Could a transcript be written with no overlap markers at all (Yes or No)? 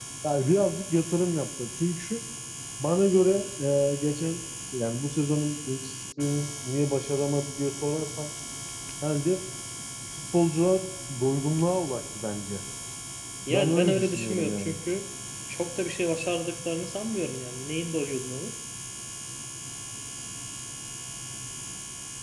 No